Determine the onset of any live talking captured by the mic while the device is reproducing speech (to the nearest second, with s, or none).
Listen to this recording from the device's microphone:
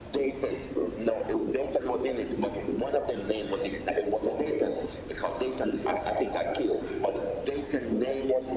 none